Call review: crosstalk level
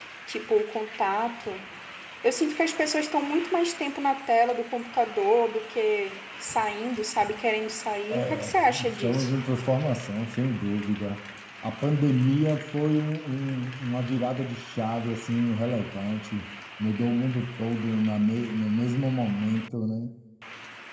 present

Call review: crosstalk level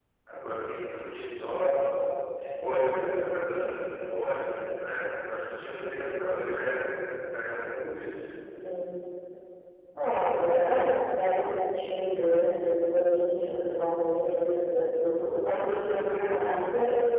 none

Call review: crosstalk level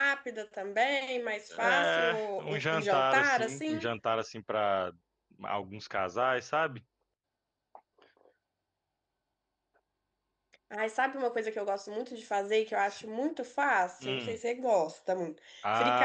present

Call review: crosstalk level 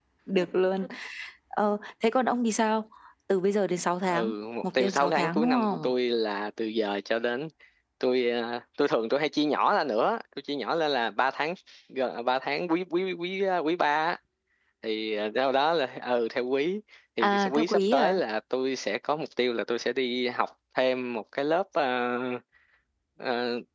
present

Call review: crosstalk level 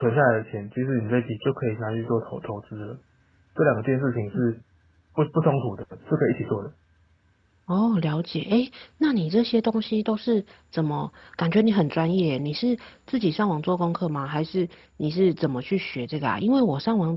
none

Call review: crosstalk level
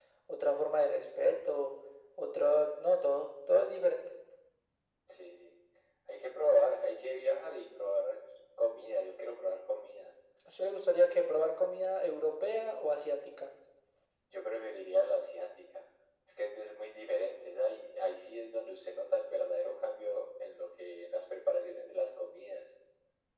none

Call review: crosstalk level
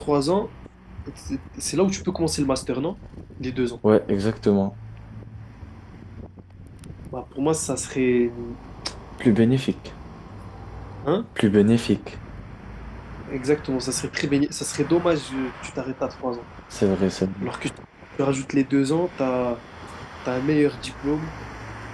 none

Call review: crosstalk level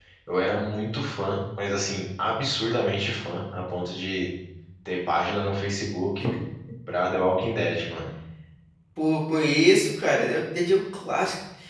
none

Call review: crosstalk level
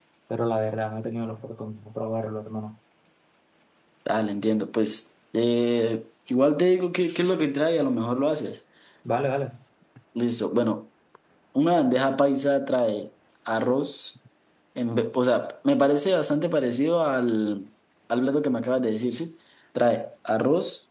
none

